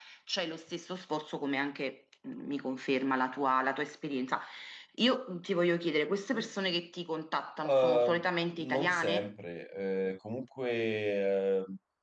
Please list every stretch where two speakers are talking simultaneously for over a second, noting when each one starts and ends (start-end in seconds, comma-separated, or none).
7.6-9.3